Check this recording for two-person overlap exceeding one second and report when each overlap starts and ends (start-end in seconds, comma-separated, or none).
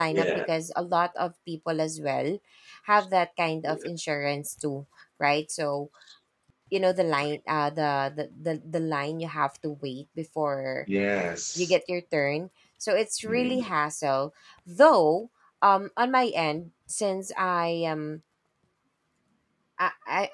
none